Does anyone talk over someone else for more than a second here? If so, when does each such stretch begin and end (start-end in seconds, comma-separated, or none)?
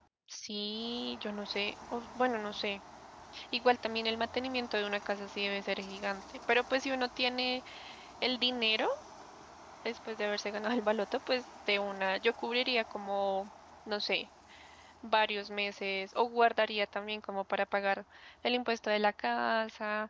none